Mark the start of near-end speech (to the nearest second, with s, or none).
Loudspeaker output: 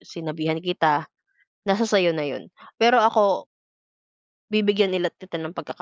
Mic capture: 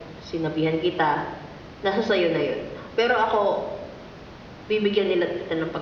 none